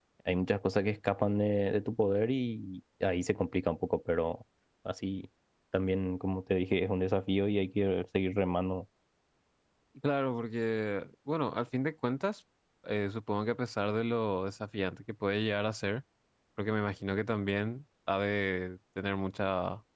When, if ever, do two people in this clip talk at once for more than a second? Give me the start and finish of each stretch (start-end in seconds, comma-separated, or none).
none